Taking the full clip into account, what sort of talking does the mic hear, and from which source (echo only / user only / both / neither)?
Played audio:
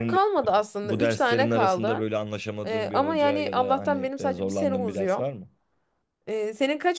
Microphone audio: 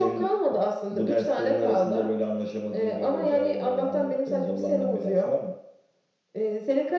echo only